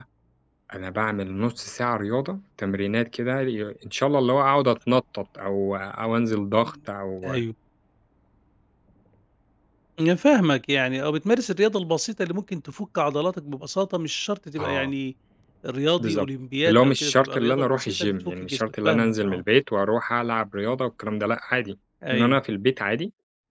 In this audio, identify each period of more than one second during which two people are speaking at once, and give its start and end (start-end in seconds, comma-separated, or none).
16.7-19.4